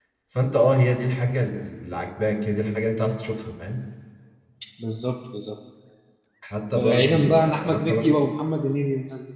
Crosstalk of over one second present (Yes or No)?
Yes